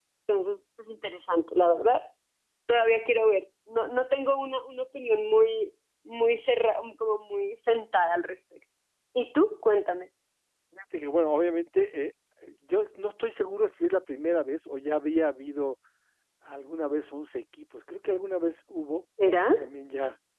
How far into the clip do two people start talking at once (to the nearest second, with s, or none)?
none